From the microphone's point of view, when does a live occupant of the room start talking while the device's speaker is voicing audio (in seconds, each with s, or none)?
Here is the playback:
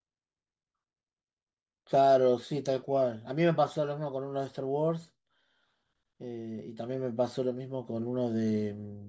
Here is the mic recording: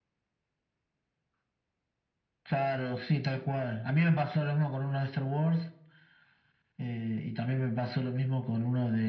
none